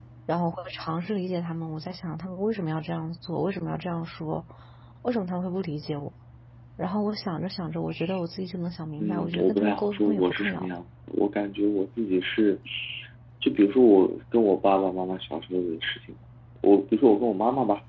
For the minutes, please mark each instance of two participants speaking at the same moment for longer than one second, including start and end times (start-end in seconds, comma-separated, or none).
9.0-10.7